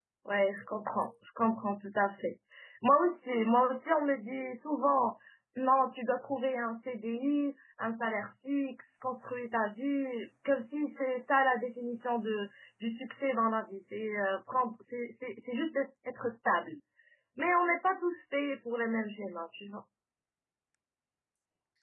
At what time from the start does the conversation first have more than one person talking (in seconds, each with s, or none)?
none